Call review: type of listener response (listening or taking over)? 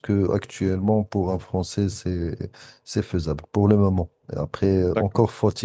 listening